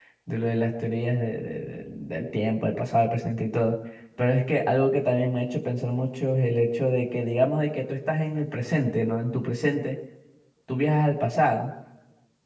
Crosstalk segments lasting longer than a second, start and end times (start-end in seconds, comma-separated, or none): none